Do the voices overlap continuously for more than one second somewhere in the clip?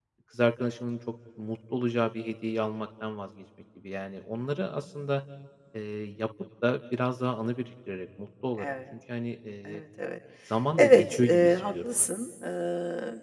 Yes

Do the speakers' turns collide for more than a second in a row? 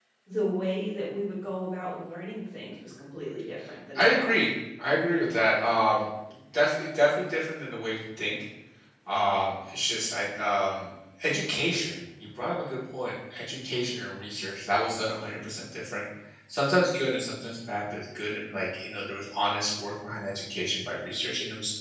No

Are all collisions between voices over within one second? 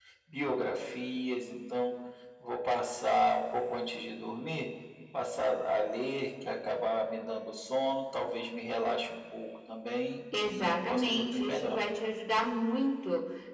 No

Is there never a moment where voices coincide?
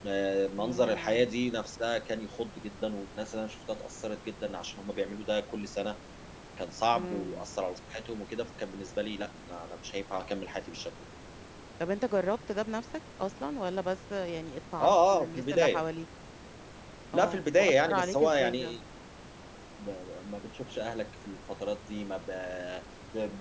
No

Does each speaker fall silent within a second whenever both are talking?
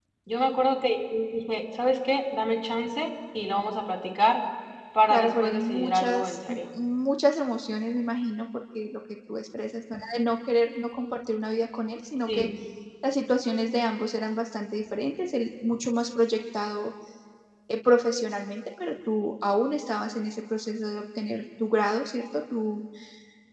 No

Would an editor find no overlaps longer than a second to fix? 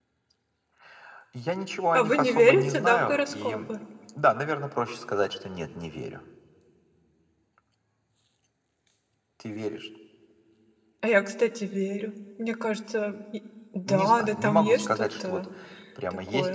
No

